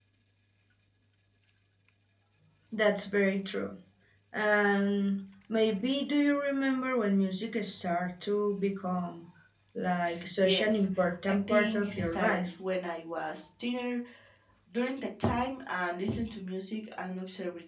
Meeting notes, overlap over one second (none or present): present